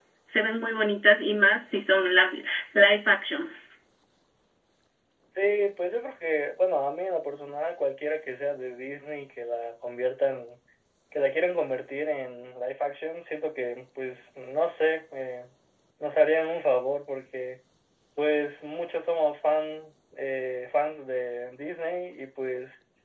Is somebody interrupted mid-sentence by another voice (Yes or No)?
No